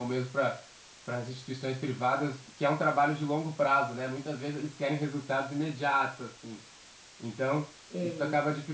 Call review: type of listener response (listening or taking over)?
listening